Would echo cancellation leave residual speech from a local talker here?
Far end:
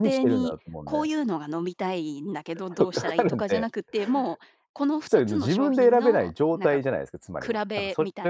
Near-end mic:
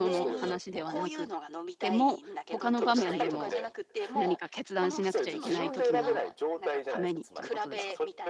Yes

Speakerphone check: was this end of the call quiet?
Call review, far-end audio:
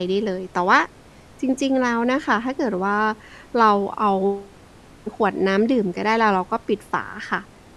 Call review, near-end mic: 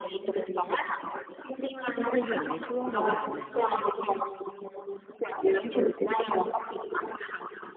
No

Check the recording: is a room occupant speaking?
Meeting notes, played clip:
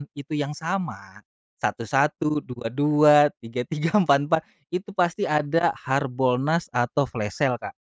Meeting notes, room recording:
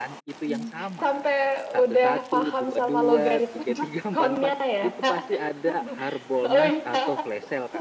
Yes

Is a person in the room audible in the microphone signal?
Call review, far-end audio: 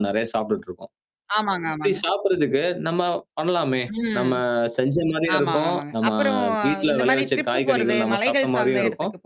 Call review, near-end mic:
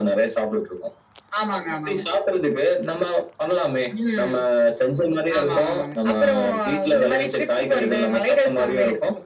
No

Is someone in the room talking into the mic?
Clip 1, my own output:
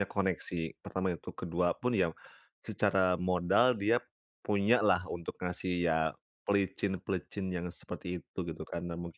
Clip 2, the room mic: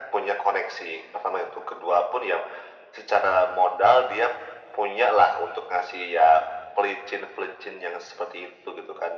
No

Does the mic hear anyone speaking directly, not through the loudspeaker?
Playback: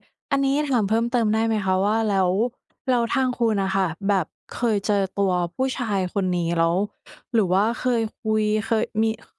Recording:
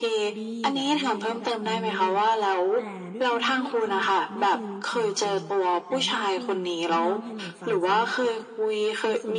Yes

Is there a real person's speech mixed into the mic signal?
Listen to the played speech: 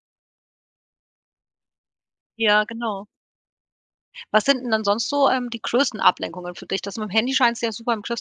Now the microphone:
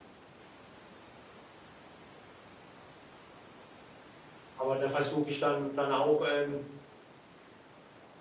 Yes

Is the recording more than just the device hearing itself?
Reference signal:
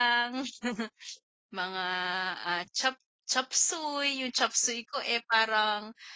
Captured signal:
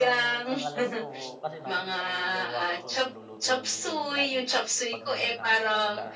Yes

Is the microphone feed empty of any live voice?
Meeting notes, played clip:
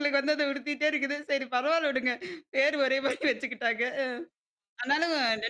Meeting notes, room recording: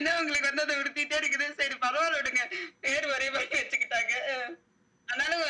Yes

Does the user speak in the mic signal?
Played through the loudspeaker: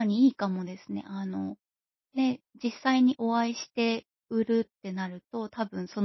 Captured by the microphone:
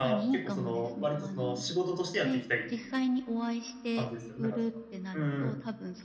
Yes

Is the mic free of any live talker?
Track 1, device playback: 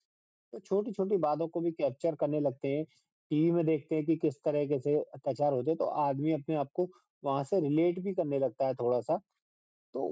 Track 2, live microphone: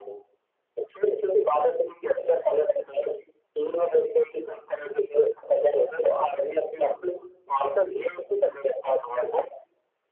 Yes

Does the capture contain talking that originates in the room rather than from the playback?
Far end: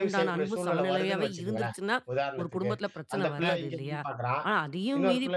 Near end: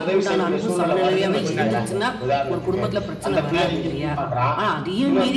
Yes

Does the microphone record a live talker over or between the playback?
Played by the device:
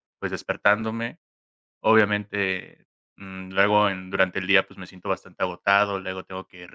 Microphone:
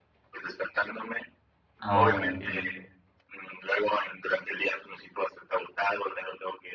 Yes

